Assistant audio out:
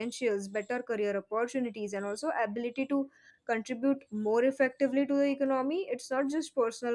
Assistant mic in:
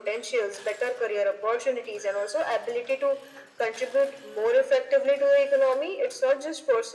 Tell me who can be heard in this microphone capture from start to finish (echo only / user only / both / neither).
echo only